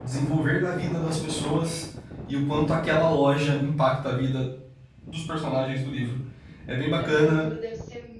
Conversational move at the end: taking over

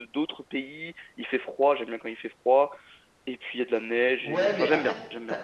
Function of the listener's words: taking over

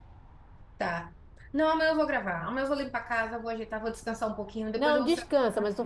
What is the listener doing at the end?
taking over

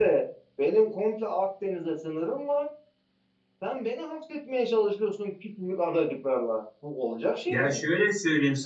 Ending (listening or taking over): taking over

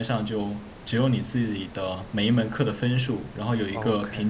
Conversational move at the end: listening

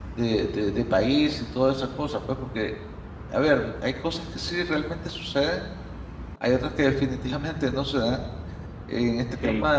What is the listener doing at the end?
listening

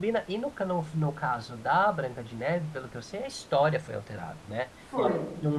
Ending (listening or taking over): listening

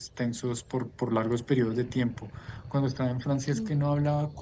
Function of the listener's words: listening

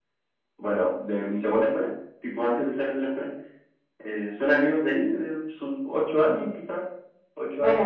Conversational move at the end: taking over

